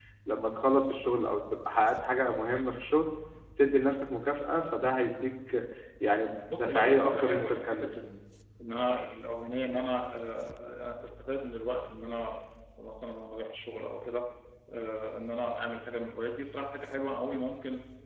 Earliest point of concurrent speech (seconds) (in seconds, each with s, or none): 6.5 s